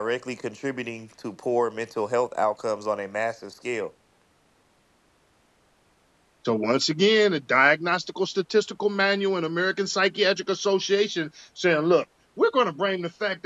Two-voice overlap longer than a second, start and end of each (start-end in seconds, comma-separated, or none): none